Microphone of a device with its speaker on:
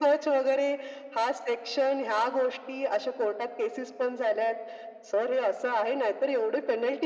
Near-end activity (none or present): none